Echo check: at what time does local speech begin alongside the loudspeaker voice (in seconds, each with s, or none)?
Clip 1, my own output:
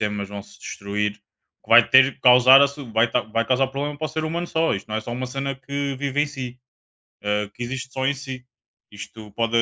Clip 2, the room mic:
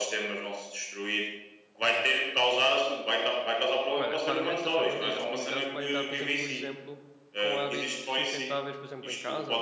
4.0 s